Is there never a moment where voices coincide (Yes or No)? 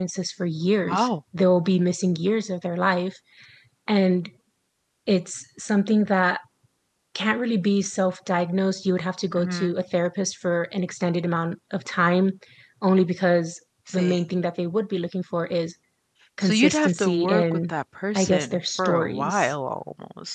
No